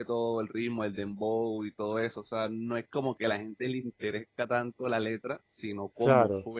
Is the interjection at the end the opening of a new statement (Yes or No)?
No